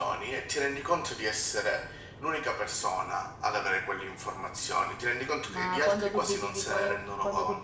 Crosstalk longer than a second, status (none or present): present